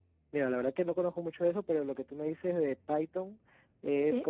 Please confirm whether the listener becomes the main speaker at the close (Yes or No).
No